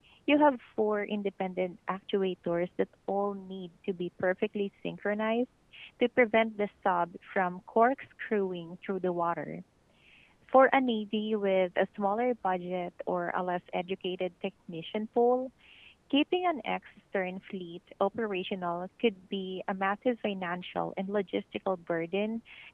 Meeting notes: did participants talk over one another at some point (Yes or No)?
No